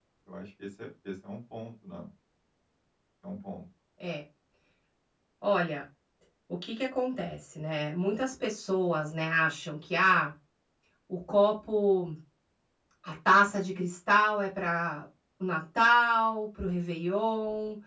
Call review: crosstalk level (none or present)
none